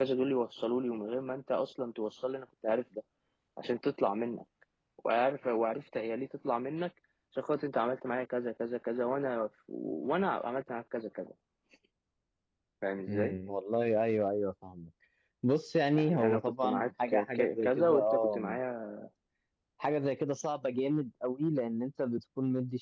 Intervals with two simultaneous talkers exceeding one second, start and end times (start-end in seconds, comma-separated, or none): 15.9-18.4